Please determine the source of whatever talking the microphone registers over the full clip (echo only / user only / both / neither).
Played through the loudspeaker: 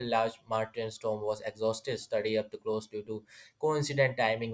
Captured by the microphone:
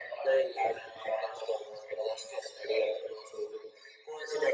echo only